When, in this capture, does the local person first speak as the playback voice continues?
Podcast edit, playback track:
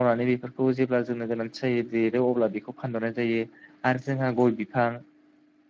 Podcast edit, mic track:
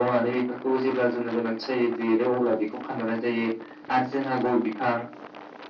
none

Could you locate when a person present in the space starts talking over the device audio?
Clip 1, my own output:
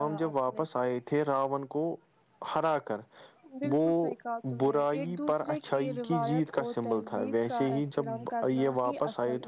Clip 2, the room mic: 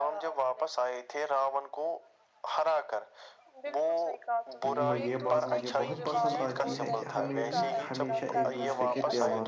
4.6 s

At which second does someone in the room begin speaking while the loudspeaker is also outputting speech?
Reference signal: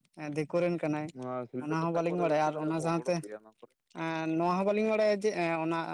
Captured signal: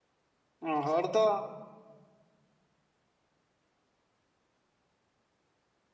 0.6 s

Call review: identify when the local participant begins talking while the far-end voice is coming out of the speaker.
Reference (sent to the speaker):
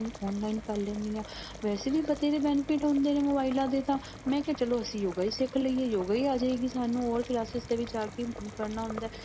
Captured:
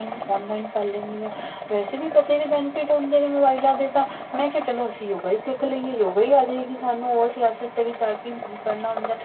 none

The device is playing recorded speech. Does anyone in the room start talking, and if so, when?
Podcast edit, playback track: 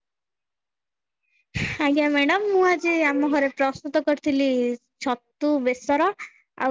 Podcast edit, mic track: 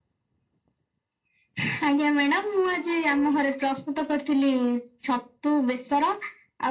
none

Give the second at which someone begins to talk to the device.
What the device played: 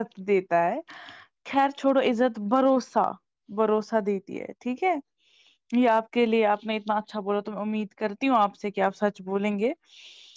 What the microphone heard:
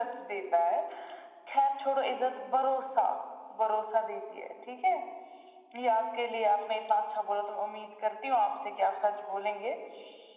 none

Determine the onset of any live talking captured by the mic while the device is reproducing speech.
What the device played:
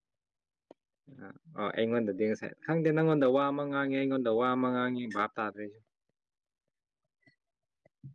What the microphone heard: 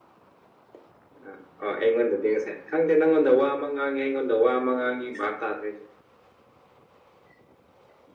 none

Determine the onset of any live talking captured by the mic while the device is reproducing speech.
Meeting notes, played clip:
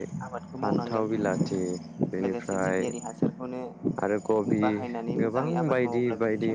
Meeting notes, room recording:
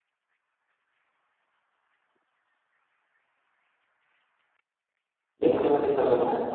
5.4 s

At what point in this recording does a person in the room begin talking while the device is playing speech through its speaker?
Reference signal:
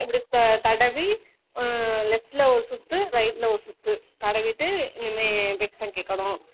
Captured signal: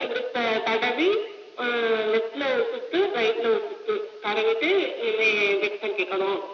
none

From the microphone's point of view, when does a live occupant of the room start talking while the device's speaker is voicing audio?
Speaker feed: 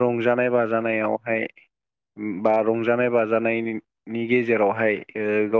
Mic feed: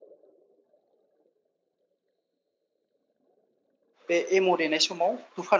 4.1 s

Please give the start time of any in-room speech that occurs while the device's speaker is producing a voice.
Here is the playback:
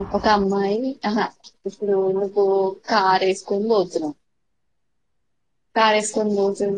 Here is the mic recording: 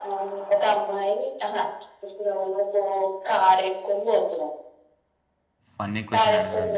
5.7 s

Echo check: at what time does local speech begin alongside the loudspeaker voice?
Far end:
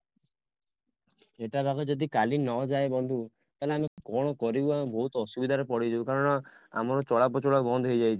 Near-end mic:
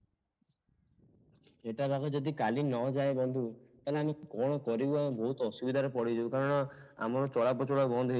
none

